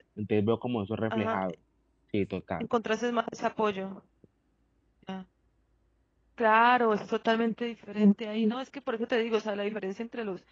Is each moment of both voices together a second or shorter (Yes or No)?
Yes